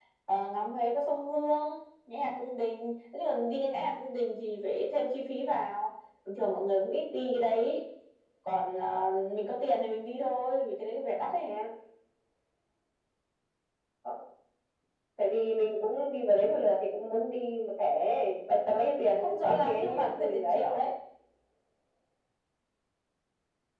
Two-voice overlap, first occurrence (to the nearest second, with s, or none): 19 s